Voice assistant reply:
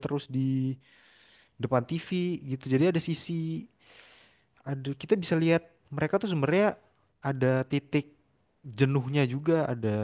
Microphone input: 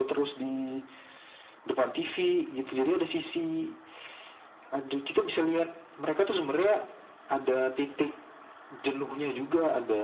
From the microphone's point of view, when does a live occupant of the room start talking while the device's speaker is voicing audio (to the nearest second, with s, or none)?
none